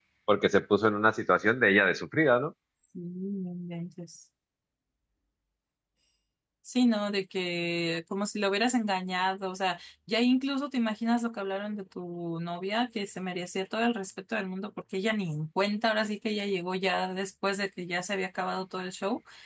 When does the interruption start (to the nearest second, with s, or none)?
none